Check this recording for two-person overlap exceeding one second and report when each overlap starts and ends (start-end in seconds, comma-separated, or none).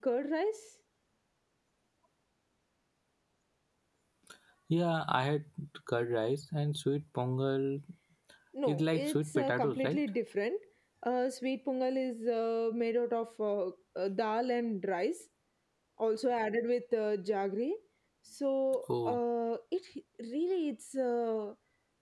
8.7-10.0